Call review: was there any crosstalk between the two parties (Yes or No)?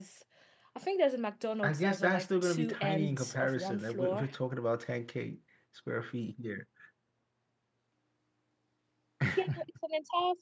Yes